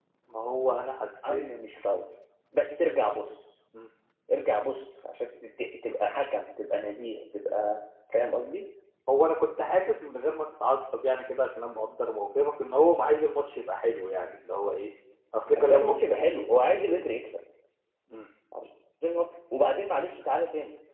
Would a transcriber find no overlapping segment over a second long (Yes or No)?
Yes